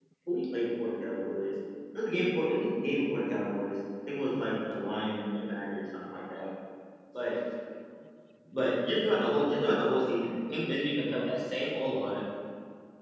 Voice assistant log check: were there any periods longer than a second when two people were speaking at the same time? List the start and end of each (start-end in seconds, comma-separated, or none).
none